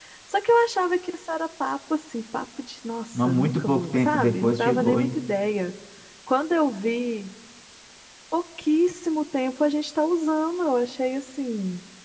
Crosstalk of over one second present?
Yes, from 3.1 s

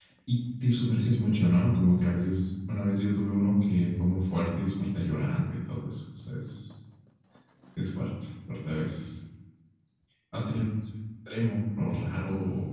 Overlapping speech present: No

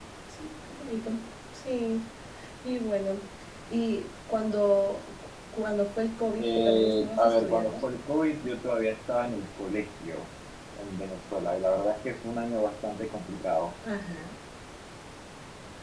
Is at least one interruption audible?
Yes, from 6.4 s

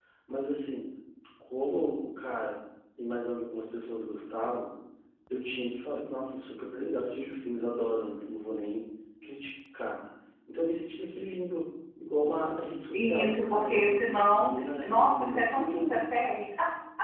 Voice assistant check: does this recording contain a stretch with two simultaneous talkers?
Yes, from 12.9 s

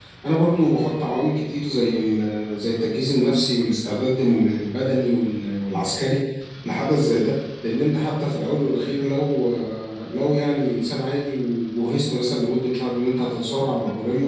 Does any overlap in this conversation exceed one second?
No

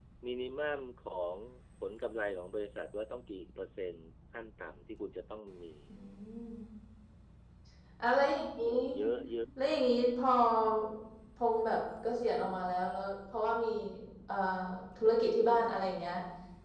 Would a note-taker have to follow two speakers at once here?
No

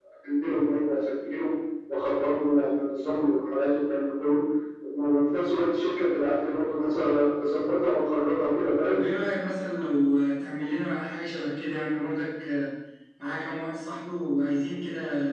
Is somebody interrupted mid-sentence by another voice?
No

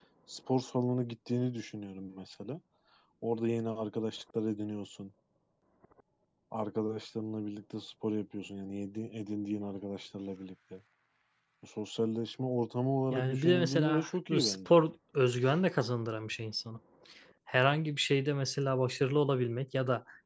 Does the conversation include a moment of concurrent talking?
Yes, from 13.1 s

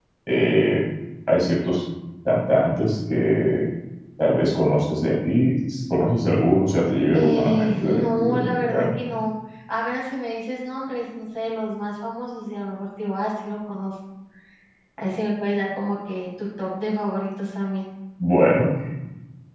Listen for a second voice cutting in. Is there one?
Yes, from 7.1 s

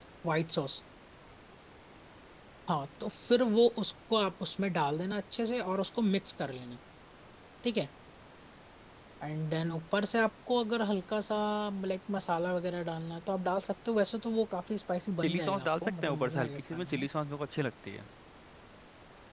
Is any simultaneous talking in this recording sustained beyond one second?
Yes, from 15.2 s

